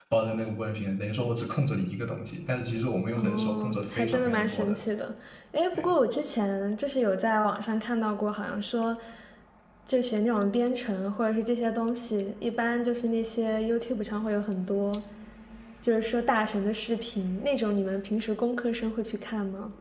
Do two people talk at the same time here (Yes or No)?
Yes